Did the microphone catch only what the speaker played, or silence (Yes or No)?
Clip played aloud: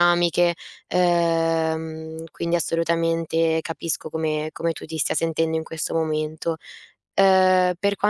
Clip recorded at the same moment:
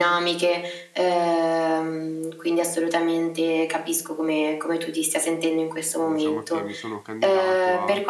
No